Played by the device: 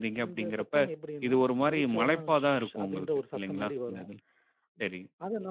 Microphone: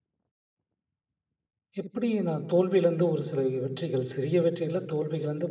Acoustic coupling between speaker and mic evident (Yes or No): No